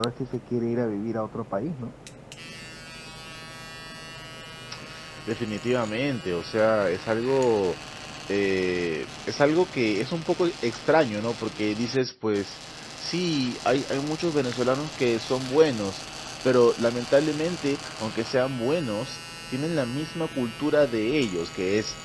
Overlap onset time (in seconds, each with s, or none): none